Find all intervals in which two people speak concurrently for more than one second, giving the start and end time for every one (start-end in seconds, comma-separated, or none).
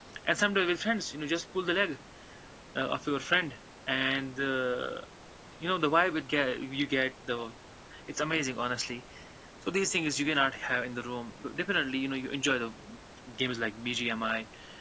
none